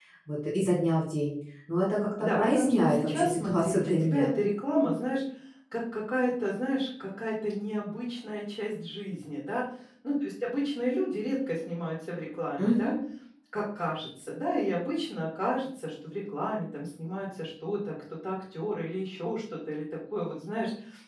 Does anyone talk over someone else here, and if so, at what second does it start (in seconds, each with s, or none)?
2.2 s